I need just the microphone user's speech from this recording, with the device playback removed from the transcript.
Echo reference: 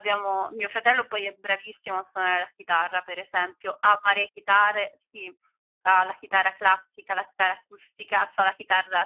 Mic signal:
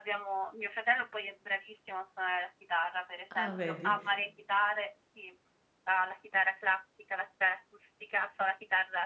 Ah, vedi.

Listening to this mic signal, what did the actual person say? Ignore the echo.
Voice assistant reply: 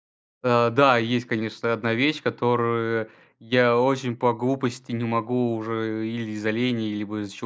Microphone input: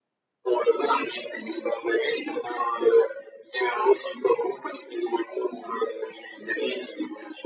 none

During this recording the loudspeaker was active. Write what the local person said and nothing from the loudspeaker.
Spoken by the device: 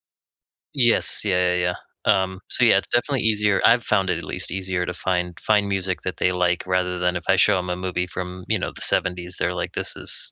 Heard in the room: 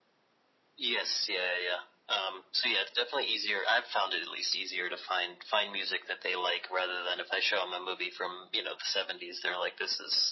none

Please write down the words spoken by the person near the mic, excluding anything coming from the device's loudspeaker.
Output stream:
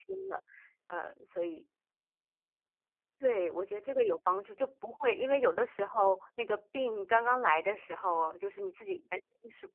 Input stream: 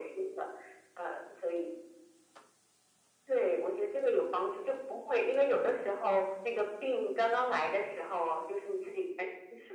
none

